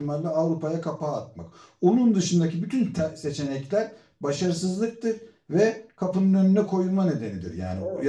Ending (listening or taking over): listening